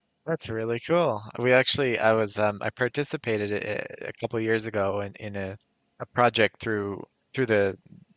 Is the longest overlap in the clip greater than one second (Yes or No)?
No